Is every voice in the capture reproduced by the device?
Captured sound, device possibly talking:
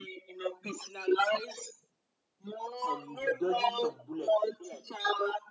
No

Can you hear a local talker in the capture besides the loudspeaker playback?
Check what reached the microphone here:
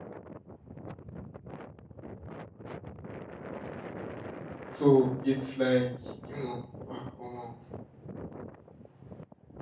Yes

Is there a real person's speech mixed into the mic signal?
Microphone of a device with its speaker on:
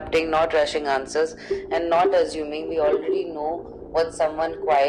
No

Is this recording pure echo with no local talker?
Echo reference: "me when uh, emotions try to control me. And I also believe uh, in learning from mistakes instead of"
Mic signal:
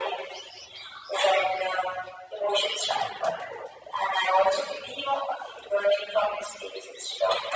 Yes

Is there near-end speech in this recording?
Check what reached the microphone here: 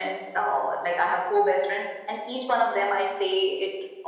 No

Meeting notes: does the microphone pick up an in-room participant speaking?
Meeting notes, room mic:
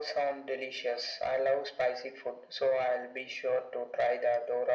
No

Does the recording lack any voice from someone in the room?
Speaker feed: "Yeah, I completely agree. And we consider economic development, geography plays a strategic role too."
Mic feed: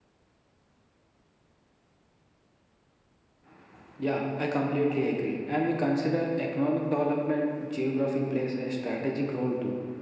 Yes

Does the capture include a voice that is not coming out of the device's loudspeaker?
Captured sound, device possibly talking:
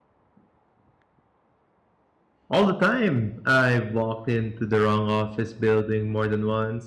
Yes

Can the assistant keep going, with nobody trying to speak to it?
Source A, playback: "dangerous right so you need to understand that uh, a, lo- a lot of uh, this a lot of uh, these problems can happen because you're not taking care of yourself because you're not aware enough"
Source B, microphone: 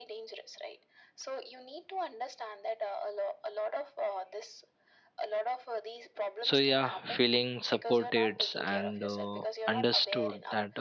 No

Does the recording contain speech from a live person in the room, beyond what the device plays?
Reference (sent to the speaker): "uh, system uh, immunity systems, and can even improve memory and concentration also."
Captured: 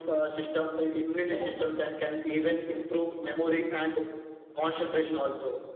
No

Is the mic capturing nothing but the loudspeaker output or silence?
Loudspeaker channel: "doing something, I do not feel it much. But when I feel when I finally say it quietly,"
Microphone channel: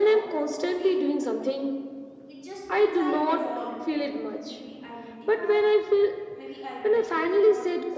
No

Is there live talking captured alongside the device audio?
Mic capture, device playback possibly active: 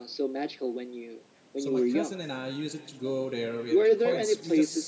Yes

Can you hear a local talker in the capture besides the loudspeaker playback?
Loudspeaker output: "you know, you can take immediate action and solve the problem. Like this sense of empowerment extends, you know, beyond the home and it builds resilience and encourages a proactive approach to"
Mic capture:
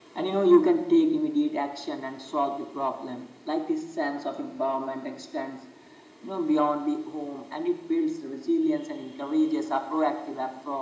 No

